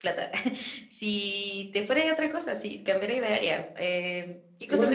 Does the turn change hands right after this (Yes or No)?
Yes